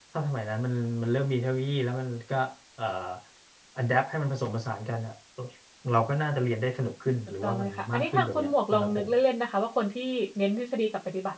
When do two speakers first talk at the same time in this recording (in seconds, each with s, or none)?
7.4 s